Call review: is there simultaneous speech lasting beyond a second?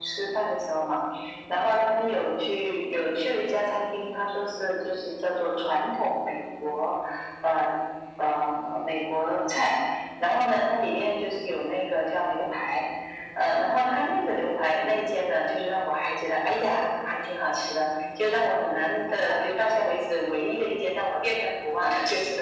No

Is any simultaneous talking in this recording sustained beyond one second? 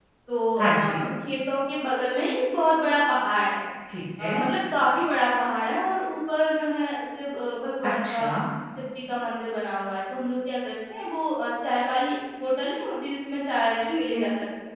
No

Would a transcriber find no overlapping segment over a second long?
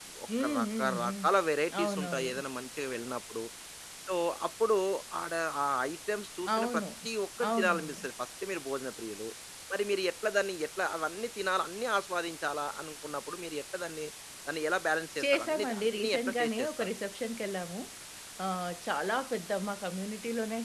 No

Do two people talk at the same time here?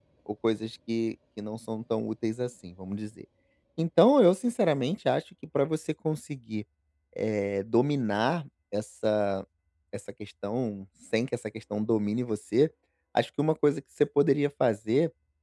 No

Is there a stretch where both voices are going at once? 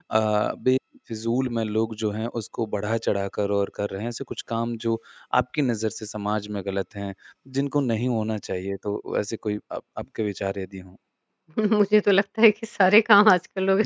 No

